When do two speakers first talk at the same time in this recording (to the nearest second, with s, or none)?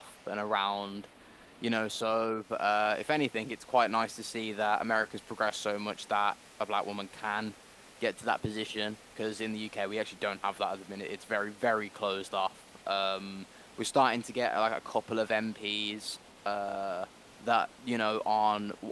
none